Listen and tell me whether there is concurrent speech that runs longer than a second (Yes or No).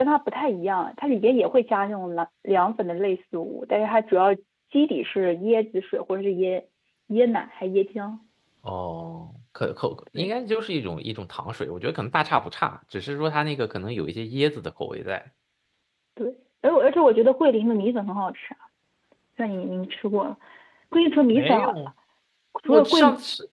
No